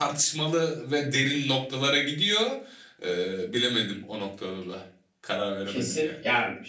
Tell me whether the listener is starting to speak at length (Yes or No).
Yes